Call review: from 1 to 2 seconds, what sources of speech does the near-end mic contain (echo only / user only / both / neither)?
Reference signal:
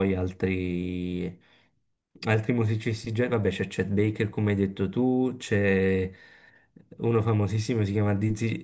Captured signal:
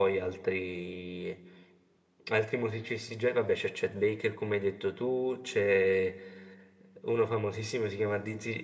echo only